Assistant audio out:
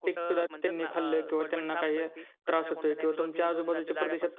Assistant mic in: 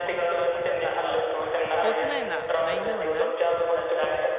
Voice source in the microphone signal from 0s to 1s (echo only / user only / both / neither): echo only